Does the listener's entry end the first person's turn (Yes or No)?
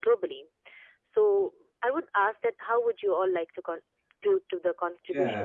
Yes